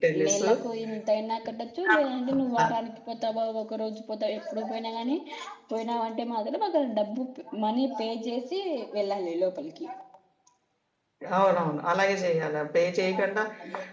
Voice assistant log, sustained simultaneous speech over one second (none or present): none